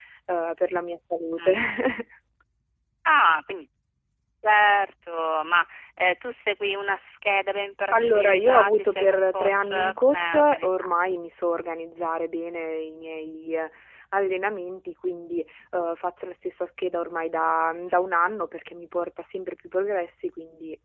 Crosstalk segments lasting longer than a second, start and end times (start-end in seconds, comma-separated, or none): 7.9-10.9